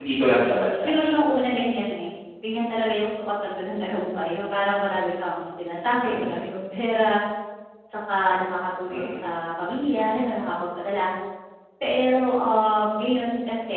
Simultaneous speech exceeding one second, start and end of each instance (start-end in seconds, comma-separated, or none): none